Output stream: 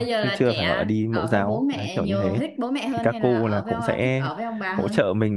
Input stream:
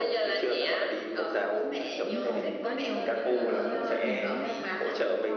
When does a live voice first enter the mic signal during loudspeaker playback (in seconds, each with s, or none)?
2.0 s